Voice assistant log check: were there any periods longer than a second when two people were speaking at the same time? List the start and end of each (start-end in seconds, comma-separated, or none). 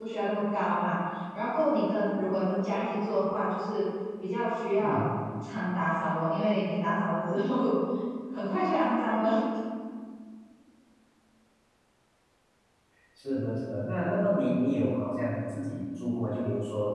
none